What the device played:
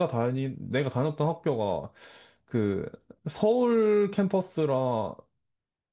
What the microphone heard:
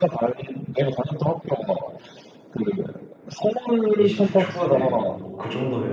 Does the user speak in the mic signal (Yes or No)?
Yes